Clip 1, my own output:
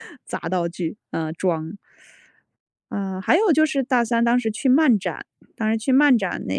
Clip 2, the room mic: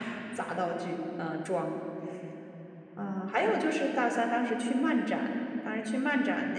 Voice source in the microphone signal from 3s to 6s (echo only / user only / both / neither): echo only